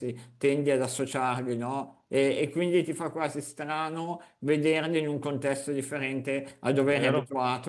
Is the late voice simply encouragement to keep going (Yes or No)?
Yes